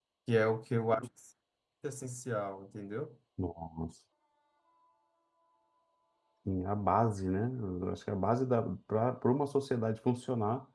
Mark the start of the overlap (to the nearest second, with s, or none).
none